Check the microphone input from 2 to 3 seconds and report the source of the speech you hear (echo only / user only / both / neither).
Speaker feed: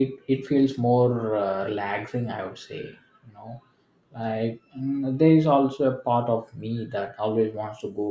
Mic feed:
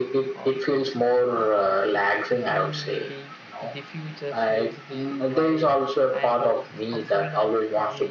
both